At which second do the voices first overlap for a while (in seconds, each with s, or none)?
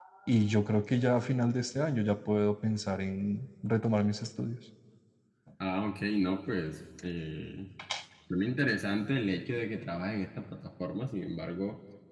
none